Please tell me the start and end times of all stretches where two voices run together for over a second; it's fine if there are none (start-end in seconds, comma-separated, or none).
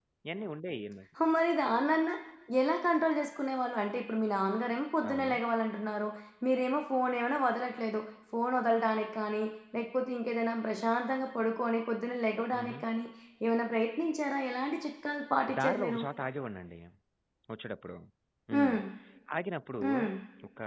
none